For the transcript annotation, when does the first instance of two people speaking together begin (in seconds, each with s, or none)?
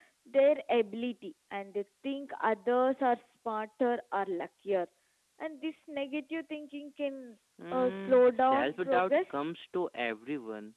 7.6 s